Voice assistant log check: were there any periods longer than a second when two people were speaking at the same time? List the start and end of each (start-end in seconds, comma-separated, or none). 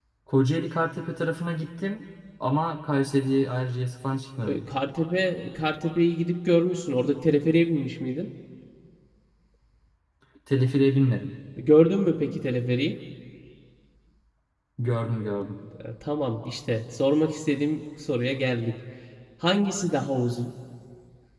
none